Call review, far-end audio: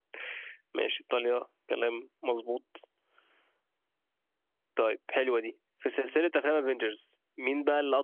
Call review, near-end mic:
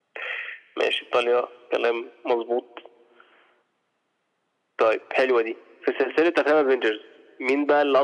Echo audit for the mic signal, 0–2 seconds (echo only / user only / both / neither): echo only